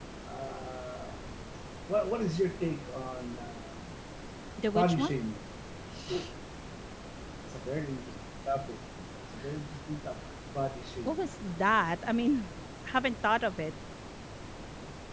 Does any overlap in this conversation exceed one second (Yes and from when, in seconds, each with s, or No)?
No